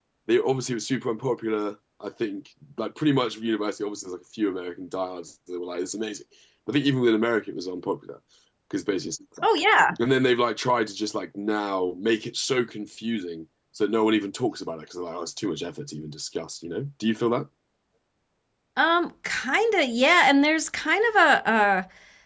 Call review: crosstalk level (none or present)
none